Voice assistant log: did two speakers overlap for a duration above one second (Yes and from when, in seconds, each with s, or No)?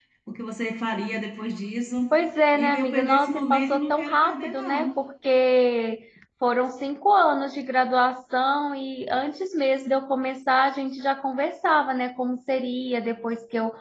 Yes, from 2.5 s